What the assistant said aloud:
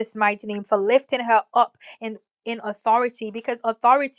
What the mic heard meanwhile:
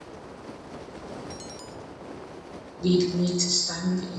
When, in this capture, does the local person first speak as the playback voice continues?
2.8 s

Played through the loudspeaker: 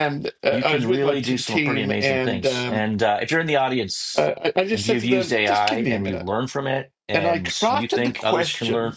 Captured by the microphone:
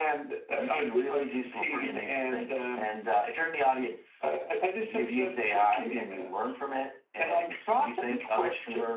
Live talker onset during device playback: none

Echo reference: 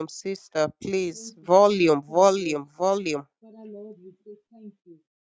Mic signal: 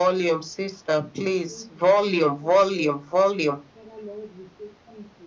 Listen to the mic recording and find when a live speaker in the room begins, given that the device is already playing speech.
none

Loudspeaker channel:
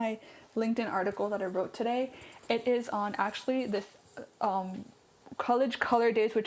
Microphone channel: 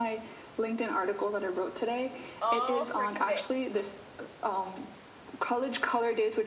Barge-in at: 2.4 s

